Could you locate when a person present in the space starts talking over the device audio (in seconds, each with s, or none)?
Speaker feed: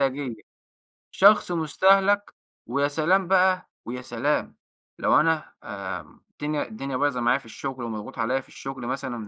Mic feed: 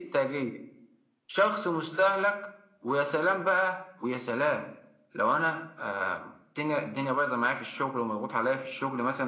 none